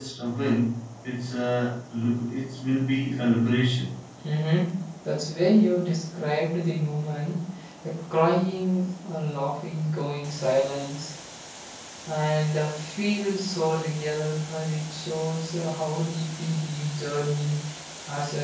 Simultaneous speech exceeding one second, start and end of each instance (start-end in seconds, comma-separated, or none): none